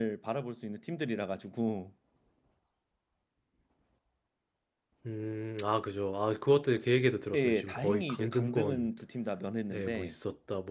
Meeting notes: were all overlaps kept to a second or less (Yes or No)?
No